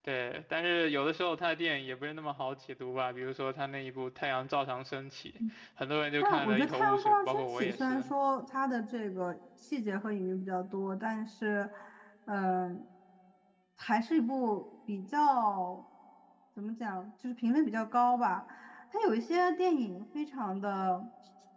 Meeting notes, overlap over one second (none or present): present